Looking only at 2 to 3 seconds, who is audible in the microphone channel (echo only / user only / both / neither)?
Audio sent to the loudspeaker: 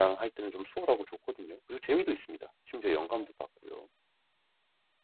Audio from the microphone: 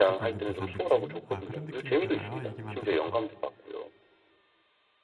both